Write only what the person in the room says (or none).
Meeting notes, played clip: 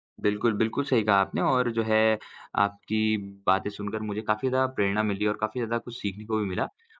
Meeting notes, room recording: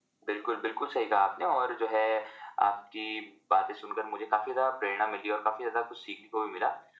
none